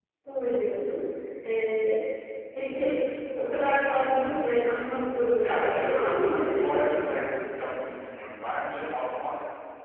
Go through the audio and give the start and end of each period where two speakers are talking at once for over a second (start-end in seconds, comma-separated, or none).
5.4-7.1